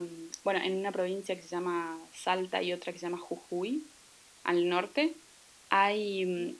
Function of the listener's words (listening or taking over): listening